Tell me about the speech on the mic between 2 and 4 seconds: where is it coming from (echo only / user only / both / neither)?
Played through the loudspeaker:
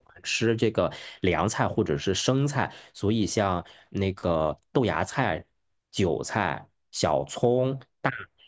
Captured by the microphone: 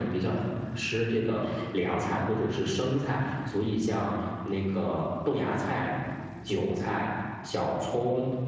echo only